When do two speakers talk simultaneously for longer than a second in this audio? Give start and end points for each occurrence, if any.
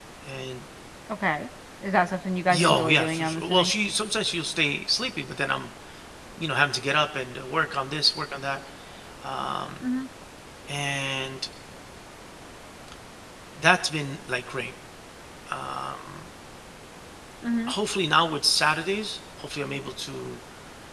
2.5-3.7

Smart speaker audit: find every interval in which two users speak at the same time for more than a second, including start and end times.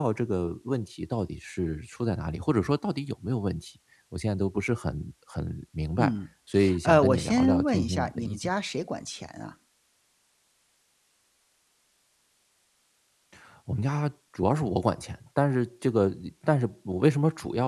6.8-8.5

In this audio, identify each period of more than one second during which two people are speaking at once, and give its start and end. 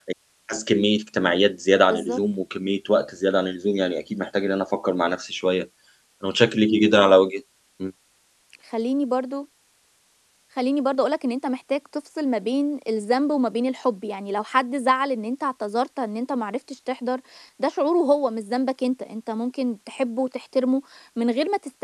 none

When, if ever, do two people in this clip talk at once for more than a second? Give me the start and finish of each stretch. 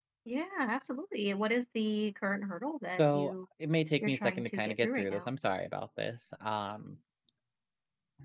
4.0-5.3

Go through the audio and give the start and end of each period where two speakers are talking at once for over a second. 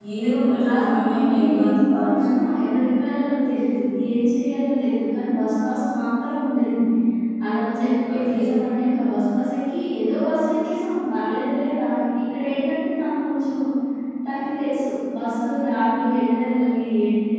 0.7-2.2

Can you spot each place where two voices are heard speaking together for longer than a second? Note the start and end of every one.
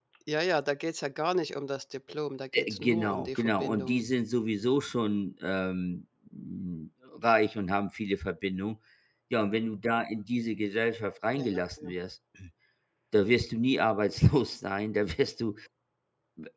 2.5-4.0

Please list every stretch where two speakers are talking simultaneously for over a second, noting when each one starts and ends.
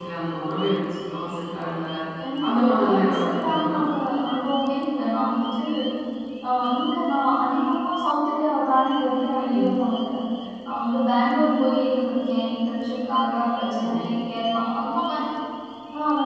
2.5-3.8

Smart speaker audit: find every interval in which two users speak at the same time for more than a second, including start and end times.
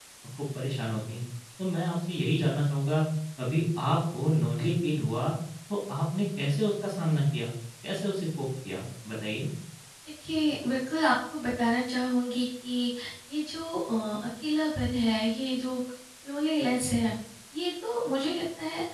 none

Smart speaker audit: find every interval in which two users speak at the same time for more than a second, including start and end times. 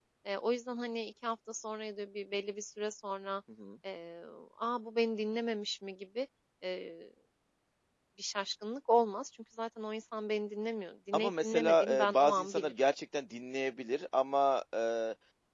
11.1-12.7

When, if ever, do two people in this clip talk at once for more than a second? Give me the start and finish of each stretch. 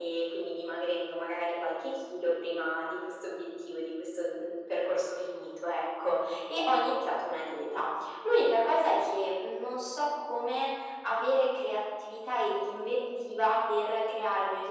none

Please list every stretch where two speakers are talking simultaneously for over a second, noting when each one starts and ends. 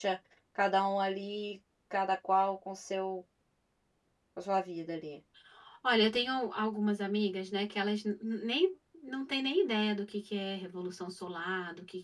none

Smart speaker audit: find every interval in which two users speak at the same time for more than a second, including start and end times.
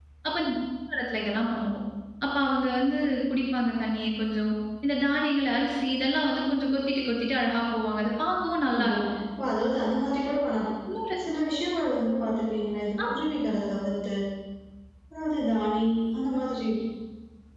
none

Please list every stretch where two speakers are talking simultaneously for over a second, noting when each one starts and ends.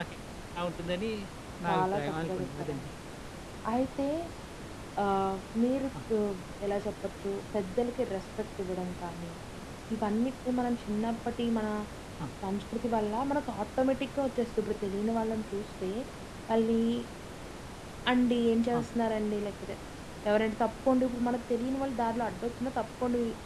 1.7-2.9

